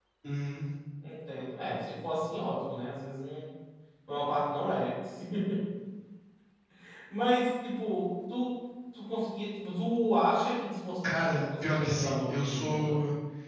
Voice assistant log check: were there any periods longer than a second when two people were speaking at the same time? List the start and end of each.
11.0-12.9

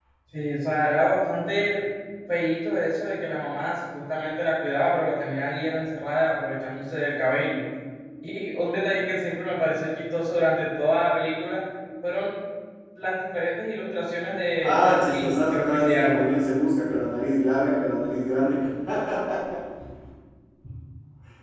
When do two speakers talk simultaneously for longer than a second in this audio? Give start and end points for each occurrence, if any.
14.6-16.3

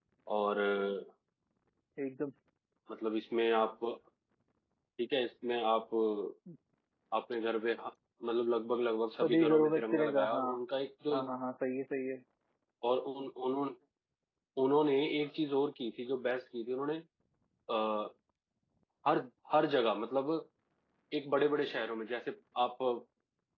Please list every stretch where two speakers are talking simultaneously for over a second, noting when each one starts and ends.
9.1-10.4

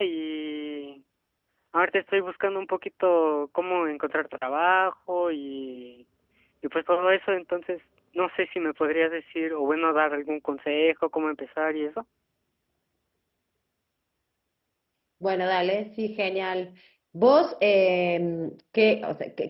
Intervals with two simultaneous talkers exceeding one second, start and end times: none

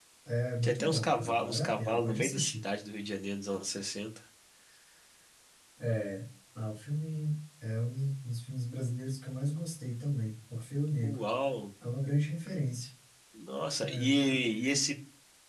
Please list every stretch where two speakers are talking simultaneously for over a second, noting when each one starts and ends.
0.6-2.6

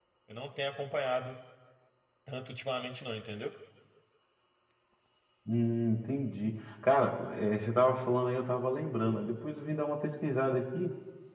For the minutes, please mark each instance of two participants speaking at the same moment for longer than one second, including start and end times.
none

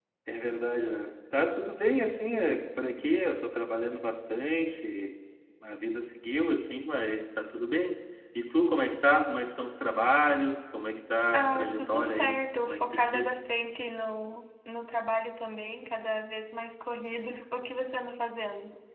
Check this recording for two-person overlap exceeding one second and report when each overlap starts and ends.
11.3-13.4

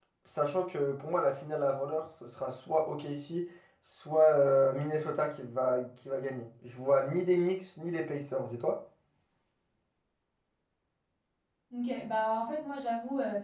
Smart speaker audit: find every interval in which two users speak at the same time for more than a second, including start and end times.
none

